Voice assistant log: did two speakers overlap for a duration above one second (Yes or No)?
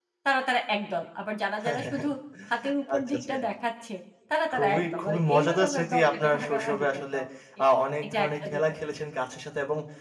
Yes